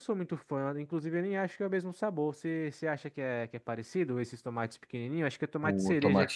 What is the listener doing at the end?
taking over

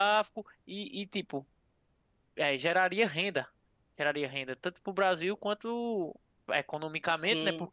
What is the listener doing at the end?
listening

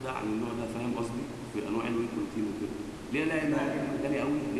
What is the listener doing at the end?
listening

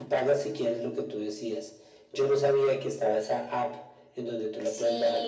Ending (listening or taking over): taking over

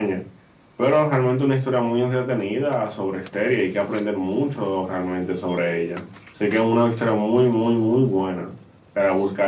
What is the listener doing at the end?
listening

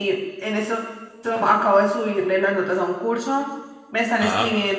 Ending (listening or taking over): listening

